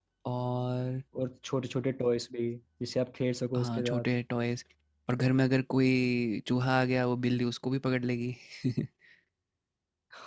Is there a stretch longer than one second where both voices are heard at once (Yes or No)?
No